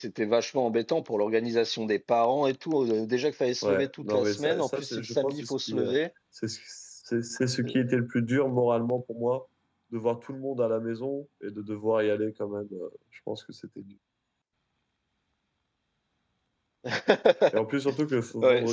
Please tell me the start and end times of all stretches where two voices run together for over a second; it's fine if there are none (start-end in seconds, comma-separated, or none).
3.6-5.9